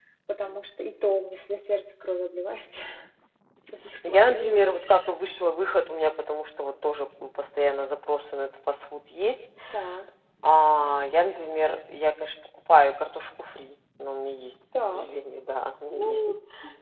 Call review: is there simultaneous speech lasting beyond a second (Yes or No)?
No